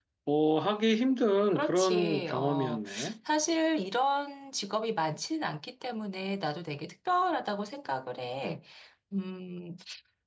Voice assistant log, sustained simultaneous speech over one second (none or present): present